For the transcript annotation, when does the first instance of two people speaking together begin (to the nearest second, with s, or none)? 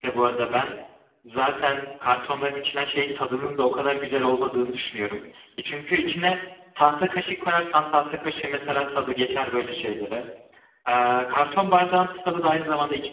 none